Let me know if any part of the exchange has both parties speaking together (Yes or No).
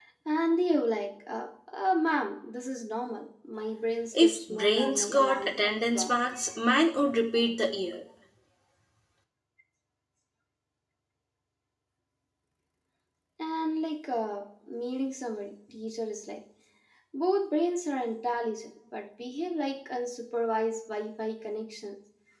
Yes